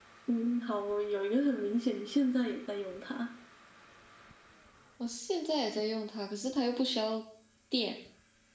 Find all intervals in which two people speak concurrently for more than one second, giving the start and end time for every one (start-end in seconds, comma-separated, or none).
none